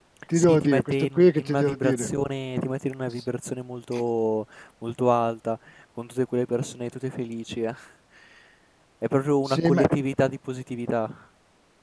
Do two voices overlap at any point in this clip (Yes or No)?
Yes